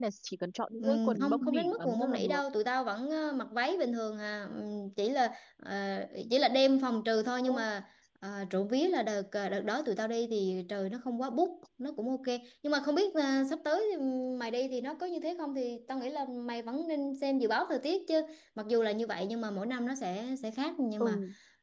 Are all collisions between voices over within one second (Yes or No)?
No